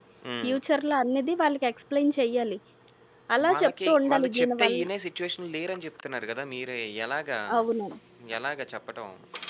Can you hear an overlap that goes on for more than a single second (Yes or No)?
Yes